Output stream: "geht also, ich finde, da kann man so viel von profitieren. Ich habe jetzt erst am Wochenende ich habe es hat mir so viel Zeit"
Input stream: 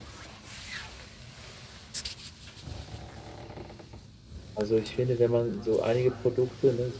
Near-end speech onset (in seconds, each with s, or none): 4.5 s